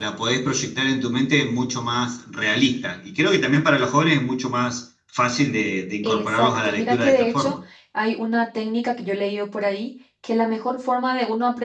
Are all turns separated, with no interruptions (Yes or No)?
No